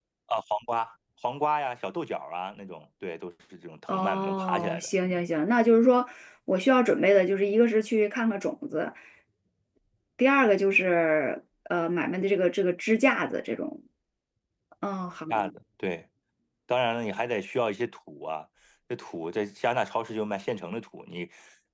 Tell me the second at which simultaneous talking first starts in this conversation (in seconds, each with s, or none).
3.9 s